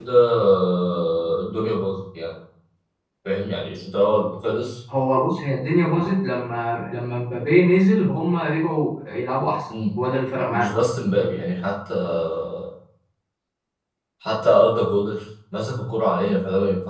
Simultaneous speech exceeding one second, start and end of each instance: none

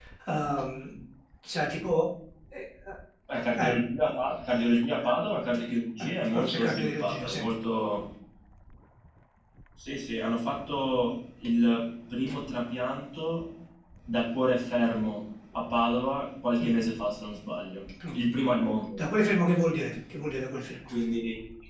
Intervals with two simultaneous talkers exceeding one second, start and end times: 6.0-7.5

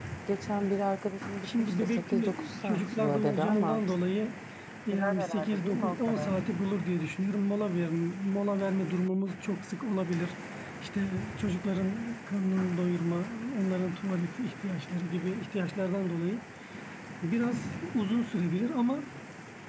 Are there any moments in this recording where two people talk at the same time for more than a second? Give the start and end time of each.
1.4-3.8, 4.9-6.3

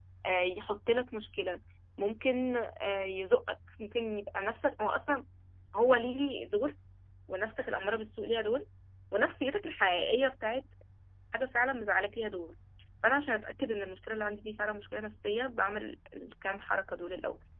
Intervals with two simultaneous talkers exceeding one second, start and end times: none

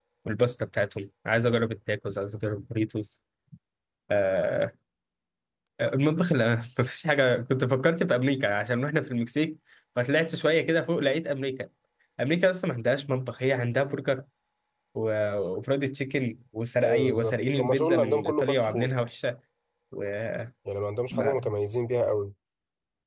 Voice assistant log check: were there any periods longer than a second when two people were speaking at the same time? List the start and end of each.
16.8-18.9

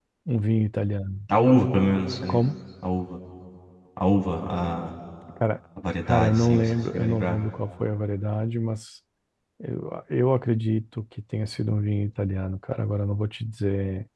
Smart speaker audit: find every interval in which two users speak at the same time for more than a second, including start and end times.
6.1-7.4

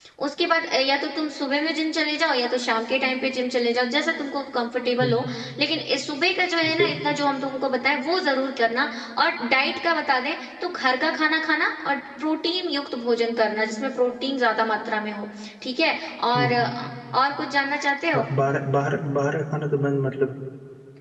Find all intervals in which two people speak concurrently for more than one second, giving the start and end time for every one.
none

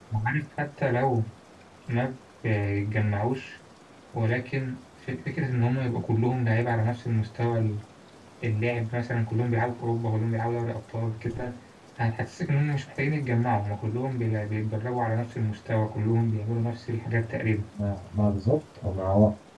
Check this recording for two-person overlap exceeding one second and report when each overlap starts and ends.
none

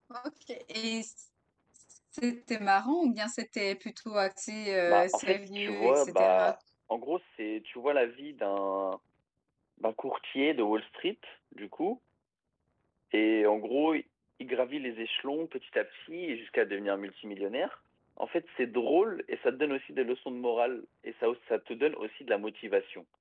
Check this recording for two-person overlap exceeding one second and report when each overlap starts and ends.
4.9-6.5

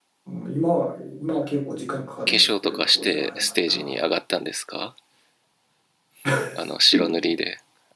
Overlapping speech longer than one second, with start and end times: 2.3-4.0

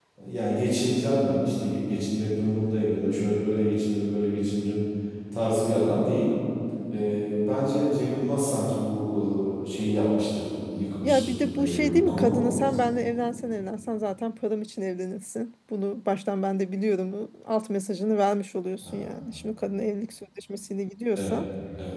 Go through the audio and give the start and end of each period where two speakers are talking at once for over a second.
11.0-12.4

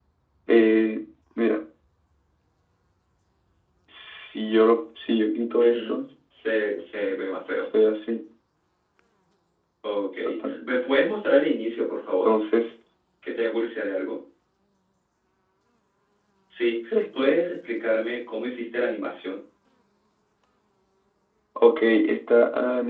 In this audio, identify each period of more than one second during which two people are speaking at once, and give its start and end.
none

